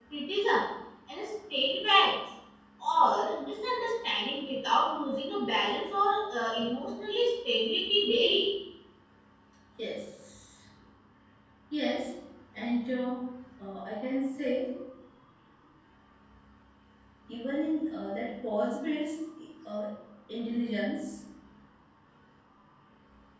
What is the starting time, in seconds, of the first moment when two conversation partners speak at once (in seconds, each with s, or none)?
none